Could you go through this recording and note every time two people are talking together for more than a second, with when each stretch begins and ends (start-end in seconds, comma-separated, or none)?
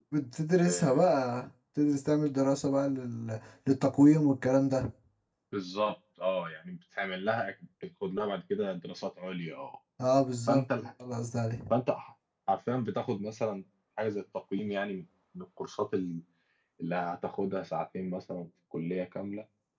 none